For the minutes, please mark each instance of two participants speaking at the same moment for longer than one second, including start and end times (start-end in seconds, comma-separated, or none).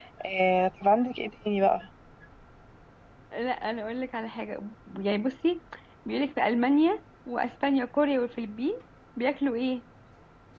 none